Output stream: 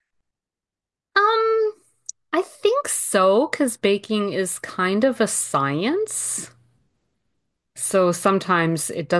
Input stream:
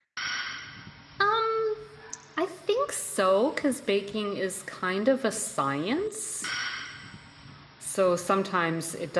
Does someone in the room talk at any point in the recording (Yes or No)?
No